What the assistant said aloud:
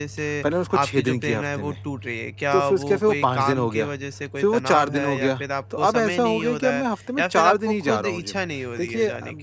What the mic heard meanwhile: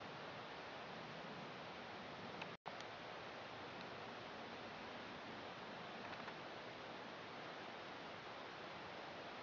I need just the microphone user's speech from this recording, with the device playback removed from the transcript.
none

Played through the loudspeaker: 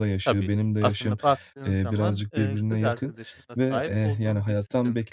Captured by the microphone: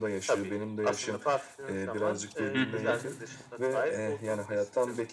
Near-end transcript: Hı hı.

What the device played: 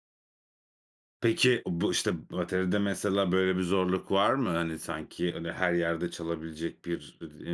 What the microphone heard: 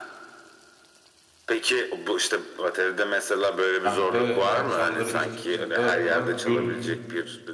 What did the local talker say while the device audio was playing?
ben de akşamları iş çıkışında falan gidiyordum.

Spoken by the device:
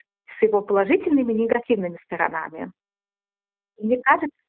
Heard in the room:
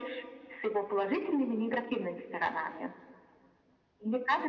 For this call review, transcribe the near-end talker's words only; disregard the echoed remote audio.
none

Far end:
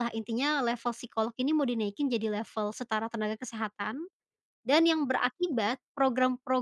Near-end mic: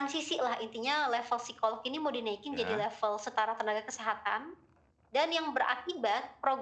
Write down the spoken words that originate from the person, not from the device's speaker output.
Iya.

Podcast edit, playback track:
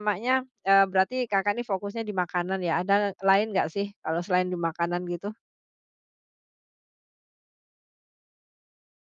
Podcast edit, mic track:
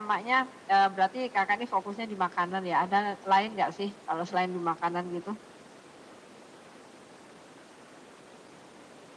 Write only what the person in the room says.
none

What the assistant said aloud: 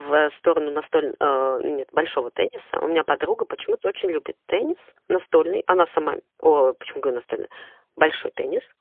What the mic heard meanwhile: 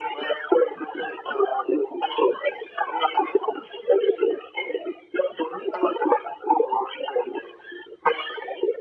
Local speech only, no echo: none

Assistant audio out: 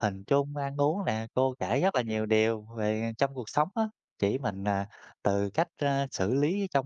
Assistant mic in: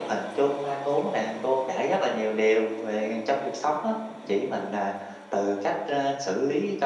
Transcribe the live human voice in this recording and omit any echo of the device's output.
none

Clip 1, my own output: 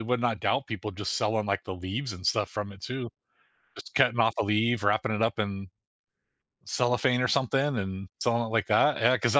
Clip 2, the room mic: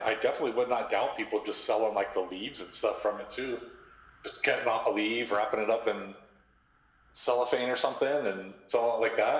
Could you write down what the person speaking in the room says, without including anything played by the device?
none

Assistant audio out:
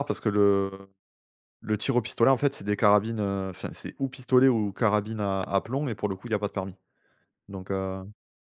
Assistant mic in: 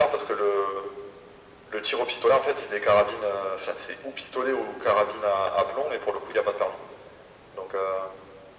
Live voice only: none

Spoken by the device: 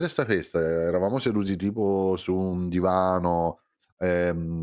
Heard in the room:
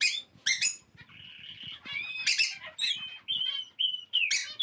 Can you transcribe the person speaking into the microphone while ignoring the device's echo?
none

